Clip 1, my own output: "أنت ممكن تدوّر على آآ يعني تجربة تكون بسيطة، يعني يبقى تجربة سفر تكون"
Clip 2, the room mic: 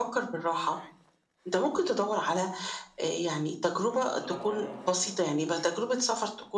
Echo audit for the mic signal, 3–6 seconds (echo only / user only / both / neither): both